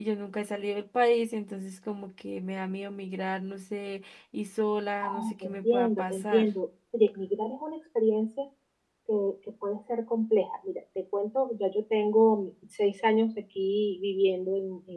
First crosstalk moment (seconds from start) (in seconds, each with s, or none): 5.0 s